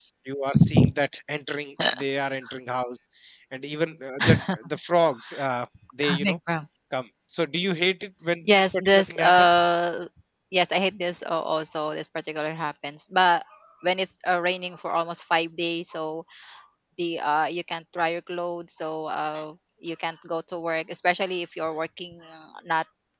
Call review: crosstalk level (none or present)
present